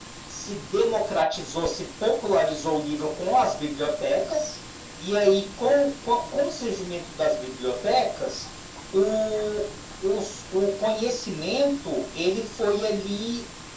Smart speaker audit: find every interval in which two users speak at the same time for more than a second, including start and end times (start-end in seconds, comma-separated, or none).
none